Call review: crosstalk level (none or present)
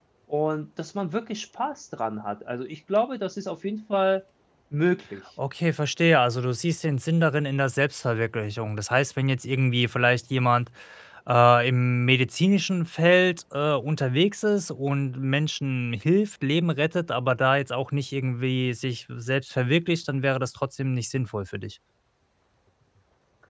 none